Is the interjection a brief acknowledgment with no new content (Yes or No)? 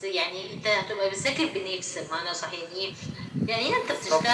Yes